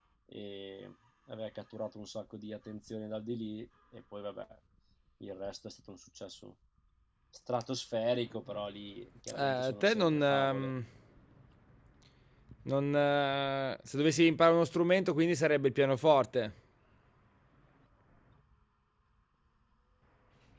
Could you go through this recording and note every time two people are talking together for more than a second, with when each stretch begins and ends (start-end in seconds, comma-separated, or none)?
9.4-10.7